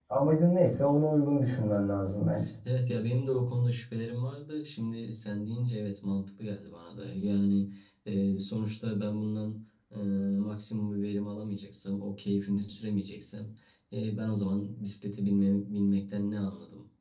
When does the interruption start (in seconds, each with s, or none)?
none